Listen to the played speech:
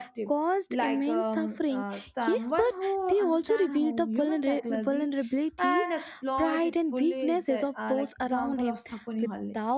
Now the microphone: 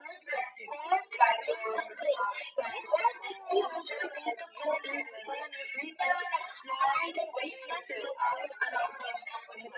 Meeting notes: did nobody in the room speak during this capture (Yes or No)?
Yes